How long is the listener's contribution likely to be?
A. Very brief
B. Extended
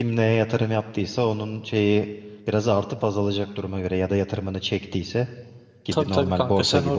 B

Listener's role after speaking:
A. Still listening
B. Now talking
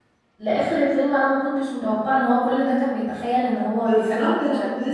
B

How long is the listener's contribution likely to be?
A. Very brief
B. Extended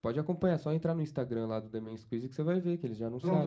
B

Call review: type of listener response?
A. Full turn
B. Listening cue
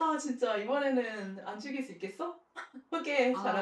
A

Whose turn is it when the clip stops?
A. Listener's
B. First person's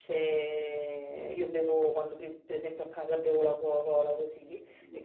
B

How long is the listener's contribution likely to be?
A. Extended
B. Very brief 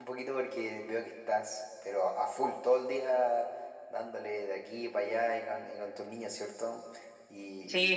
A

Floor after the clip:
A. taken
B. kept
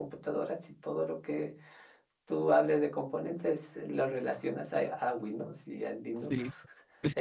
A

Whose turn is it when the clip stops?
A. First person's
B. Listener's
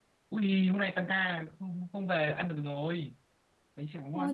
B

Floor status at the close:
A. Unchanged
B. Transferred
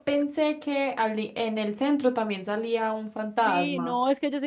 B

